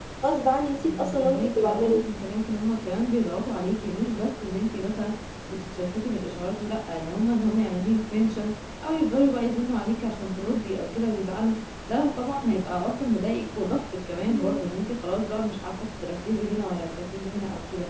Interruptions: present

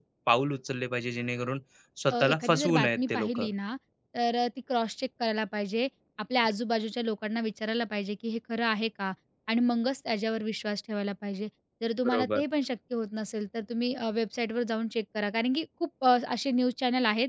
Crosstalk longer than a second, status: present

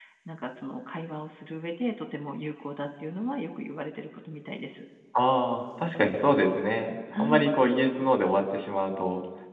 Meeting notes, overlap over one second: none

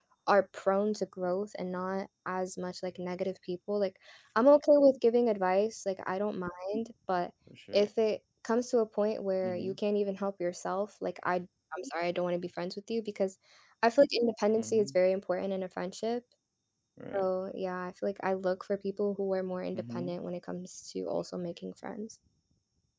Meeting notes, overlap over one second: none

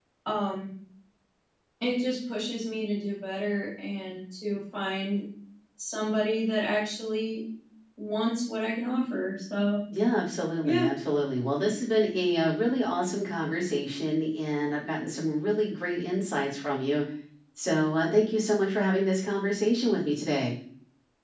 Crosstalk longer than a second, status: none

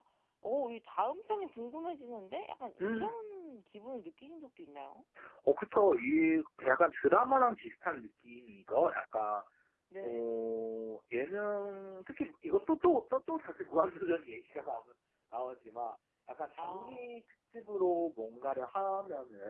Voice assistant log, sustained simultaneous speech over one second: none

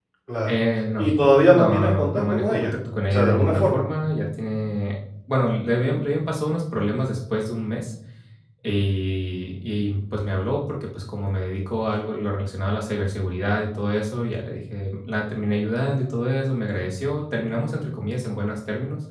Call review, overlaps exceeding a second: present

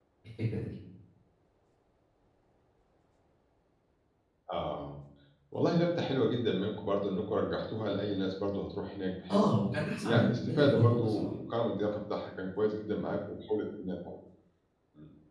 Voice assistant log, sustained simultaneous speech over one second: present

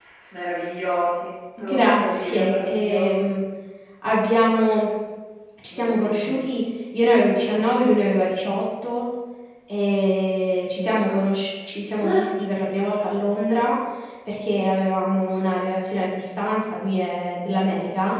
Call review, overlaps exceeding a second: present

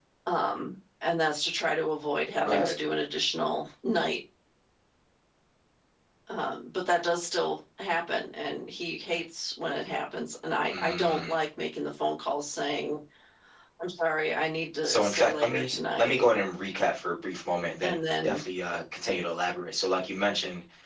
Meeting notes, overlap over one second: present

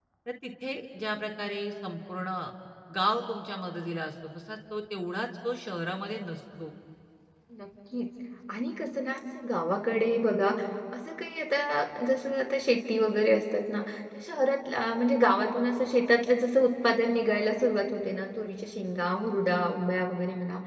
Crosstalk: none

